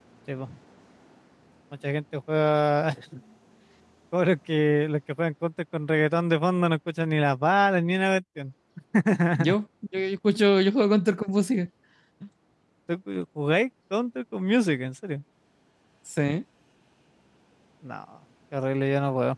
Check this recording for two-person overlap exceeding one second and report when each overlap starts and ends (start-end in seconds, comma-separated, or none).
none